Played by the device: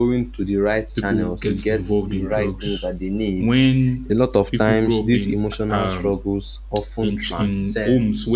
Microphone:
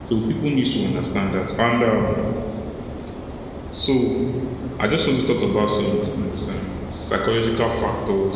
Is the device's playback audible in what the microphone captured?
No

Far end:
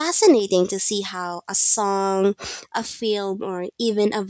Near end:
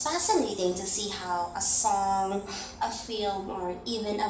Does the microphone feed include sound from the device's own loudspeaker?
Yes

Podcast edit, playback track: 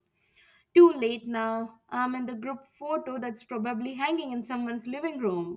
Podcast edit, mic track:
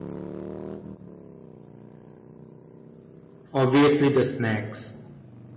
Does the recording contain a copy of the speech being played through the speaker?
No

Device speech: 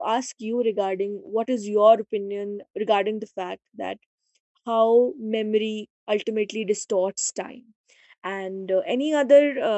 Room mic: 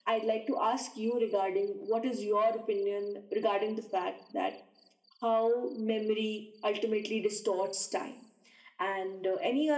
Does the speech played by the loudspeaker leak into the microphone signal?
Yes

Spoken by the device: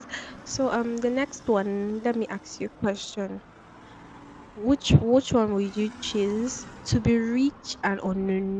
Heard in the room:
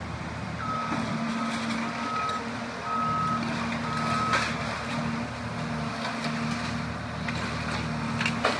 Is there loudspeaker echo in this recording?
No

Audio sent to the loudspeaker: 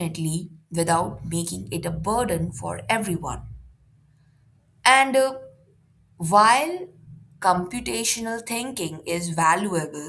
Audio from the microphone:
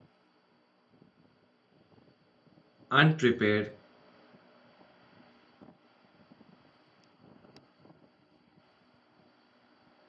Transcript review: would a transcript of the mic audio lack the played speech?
Yes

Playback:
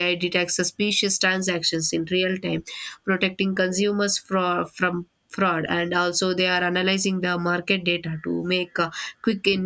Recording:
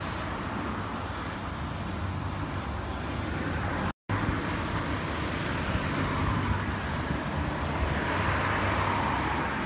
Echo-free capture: Yes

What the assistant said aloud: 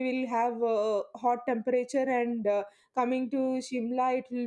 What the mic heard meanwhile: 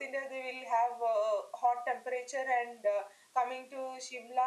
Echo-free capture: No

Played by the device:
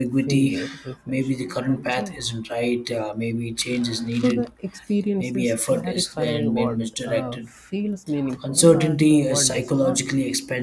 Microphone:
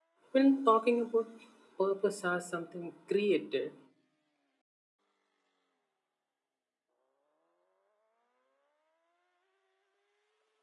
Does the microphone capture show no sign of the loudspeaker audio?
Yes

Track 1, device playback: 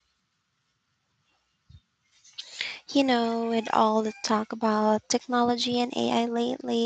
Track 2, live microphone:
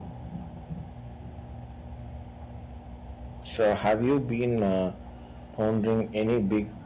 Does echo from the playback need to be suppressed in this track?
No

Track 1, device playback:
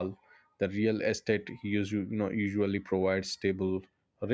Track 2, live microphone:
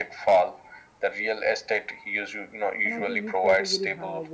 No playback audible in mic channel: No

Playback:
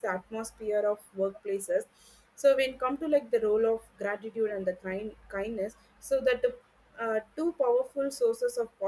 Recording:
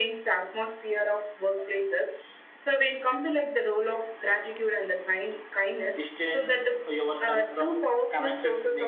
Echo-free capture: No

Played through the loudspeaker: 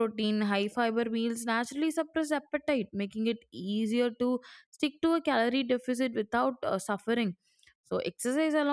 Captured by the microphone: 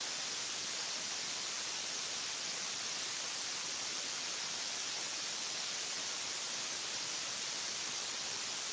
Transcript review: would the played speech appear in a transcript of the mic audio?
No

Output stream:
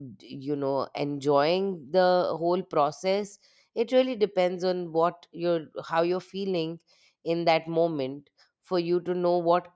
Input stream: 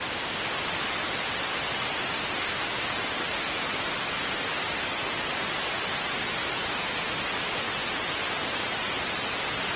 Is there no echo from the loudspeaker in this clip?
Yes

